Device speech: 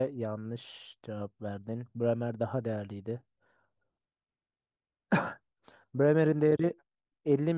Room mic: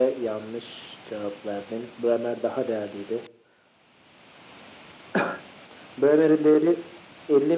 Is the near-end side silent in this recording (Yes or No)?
Yes